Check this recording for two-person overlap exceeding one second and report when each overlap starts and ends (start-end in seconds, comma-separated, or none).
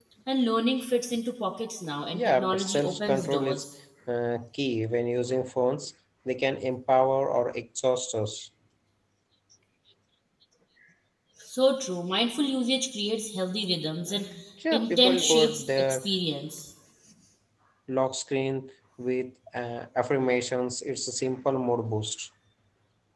2.1-3.6, 14.7-16.1